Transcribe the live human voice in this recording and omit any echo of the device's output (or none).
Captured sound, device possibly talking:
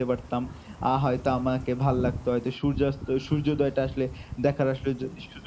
none